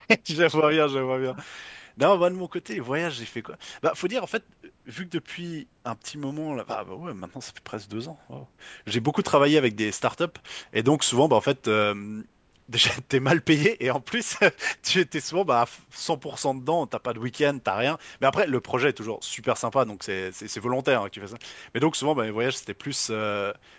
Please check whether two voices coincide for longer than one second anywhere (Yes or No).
No